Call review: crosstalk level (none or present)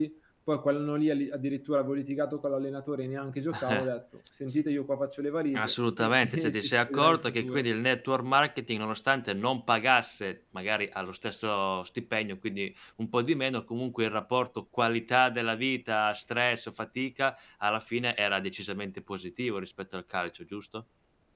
present